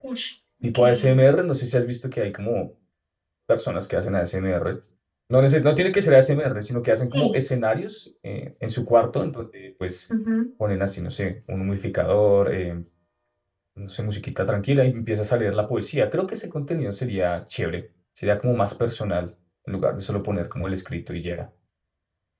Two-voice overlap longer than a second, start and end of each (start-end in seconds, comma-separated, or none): none